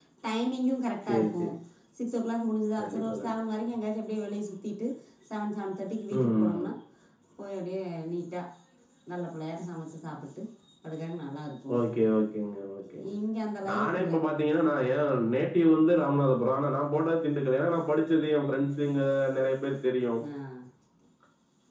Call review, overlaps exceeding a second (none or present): none